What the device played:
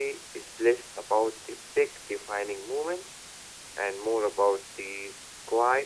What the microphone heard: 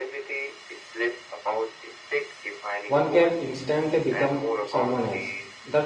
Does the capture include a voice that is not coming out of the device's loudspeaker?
Yes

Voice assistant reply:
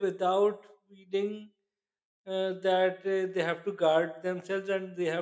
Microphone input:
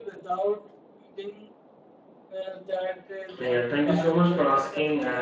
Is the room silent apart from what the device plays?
No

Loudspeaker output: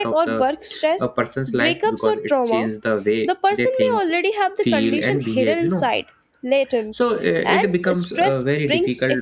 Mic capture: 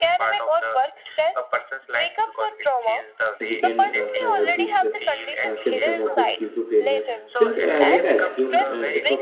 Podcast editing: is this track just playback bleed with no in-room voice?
No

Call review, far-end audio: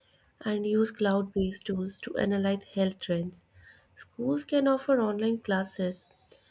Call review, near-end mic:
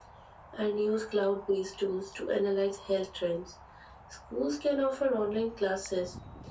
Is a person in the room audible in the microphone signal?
No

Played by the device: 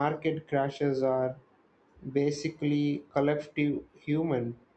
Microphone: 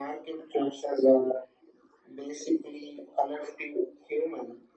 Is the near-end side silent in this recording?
Yes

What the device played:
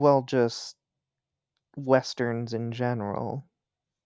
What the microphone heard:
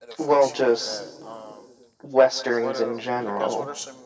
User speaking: Yes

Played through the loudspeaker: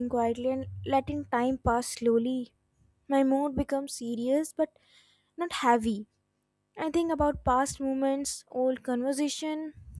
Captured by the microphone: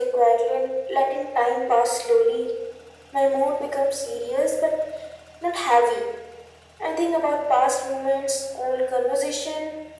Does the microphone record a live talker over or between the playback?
No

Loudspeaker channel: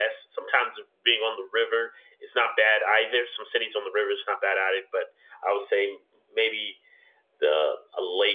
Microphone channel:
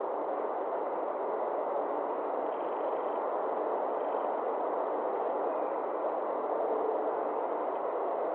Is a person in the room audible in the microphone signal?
No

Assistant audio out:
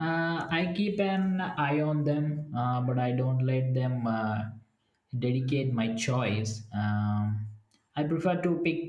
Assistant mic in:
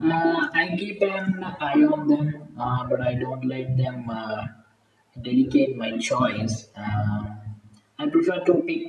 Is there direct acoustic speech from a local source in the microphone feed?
No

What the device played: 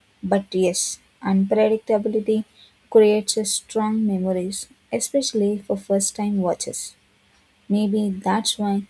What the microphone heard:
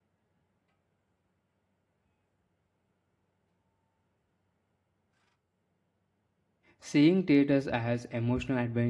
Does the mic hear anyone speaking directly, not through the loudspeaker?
Yes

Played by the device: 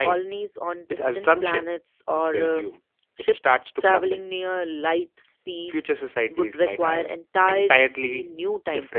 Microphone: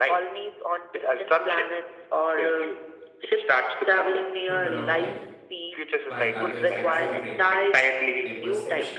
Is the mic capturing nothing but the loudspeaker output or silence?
No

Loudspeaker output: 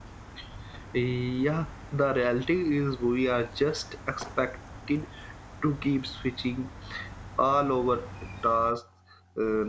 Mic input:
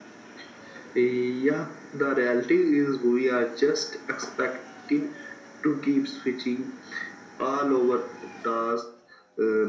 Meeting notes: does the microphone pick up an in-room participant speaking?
No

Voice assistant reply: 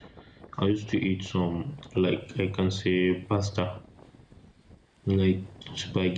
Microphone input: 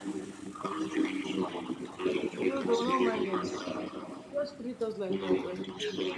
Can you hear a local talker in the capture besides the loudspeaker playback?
Yes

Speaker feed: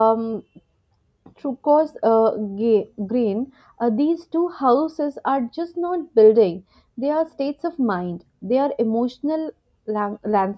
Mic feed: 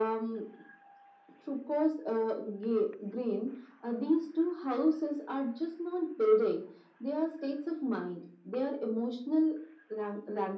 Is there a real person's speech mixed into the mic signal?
No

